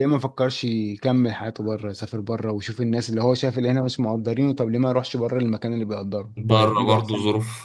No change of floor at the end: No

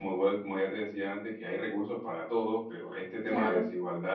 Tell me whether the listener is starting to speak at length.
No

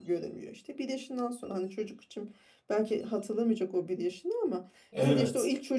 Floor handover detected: No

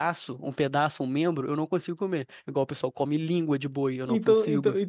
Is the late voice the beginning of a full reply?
Yes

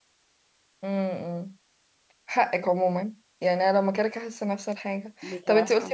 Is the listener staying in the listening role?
Yes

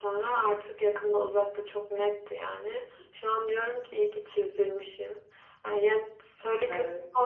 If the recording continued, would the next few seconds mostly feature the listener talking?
No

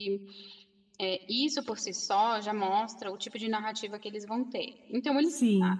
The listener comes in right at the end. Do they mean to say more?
No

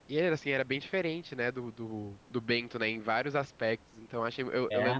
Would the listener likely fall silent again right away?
Yes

